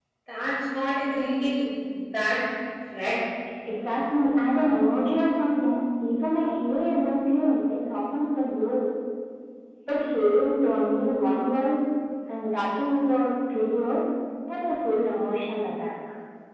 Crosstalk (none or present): none